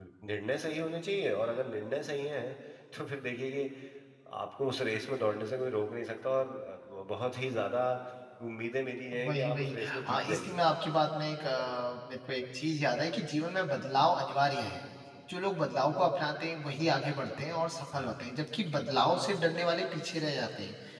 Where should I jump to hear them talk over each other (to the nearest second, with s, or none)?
9 s